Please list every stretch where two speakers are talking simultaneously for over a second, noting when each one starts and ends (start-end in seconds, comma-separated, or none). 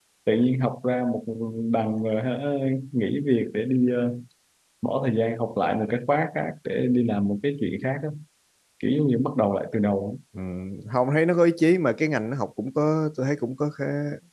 none